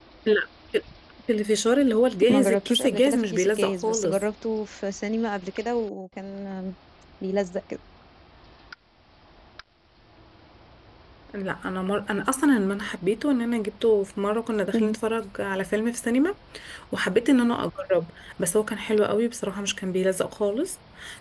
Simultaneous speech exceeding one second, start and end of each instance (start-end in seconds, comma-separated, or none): 2.3-4.2